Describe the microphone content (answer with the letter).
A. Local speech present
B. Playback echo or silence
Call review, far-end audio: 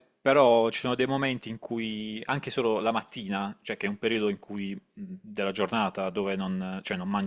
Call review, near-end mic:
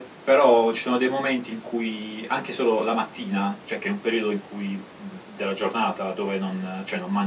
B